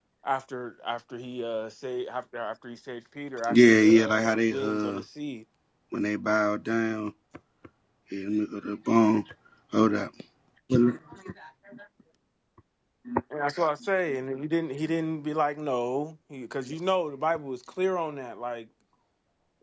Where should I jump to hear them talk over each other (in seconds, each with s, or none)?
3.4 s